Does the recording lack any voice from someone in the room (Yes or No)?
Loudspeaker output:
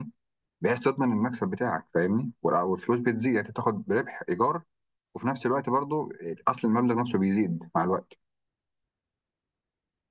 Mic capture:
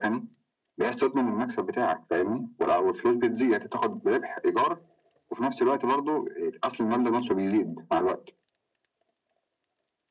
Yes